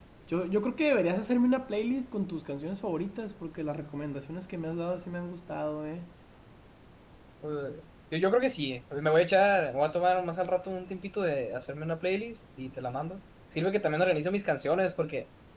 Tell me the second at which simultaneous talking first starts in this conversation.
none

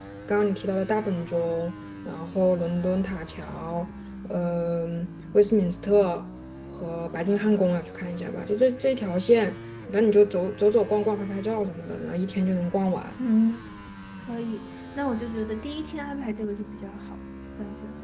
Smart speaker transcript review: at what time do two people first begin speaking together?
none

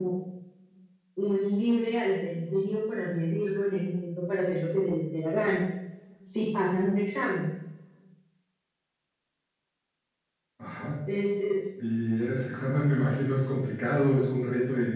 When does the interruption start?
none

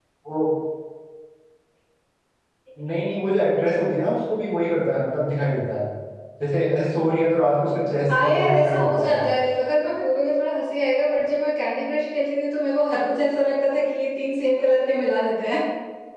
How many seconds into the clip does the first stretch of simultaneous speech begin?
8.1 s

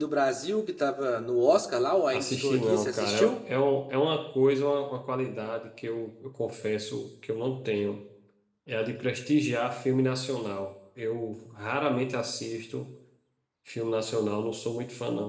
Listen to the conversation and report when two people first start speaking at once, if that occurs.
2.1 s

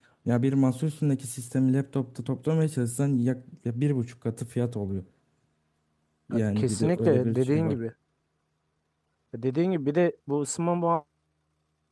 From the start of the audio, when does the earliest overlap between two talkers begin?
6.3 s

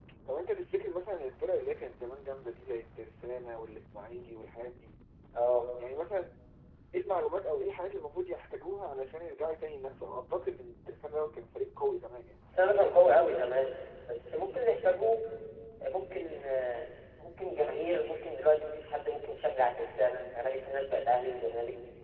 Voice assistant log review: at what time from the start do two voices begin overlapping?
none

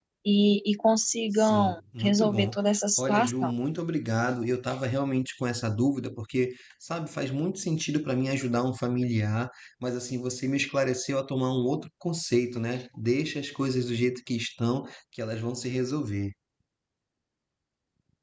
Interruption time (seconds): 1.3 s

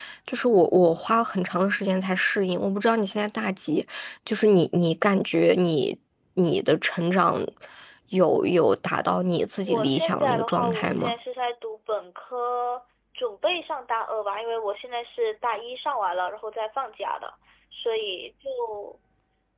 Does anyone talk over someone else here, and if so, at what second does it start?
9.6 s

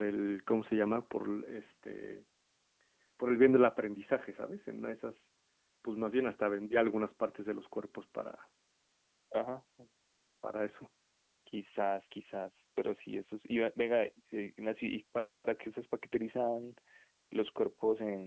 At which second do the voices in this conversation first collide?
none

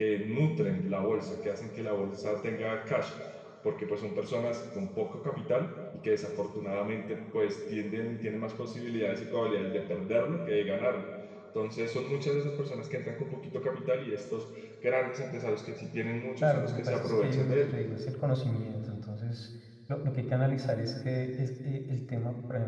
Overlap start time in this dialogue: 16.4 s

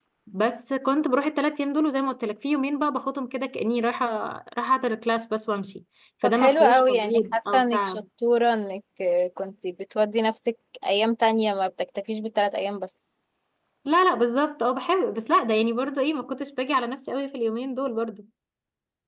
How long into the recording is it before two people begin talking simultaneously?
6.2 s

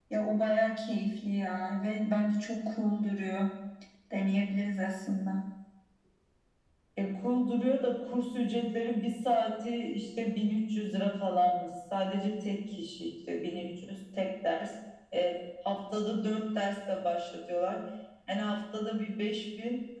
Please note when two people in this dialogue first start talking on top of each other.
none

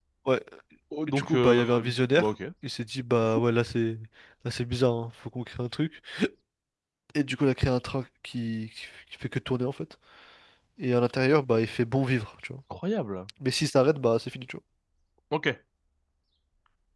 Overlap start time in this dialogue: 1.1 s

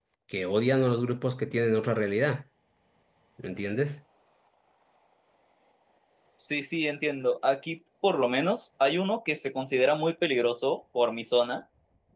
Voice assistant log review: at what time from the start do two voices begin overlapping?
none

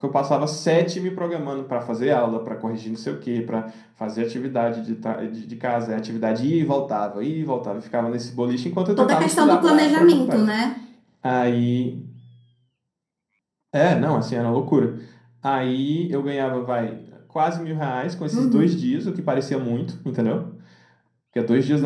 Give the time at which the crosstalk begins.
9.0 s

